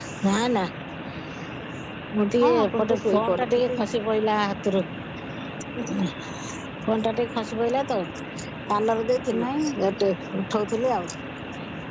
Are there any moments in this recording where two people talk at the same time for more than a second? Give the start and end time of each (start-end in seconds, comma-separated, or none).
2.4-3.7